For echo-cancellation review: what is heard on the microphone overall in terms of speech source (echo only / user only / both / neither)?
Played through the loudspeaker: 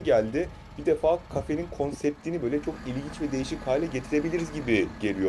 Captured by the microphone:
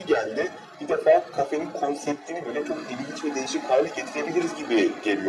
echo only